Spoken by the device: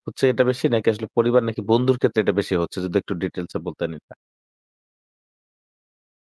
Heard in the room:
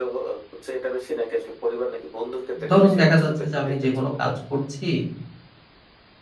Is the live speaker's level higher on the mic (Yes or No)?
Yes